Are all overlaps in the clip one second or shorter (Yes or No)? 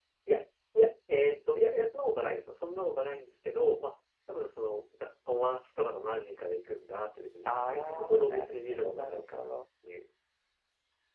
No